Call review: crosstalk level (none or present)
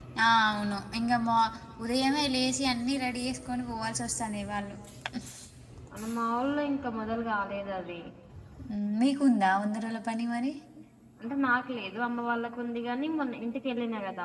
none